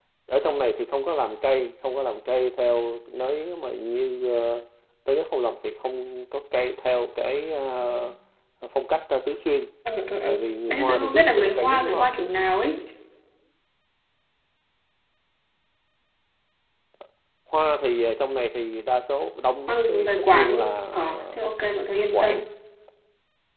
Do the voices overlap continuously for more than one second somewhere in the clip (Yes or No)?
Yes